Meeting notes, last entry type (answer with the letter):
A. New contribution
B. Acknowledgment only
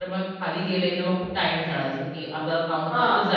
B